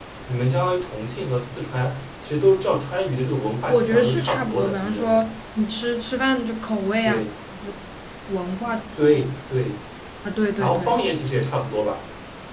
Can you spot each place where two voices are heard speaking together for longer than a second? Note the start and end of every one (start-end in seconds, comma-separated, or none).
3.7-5.2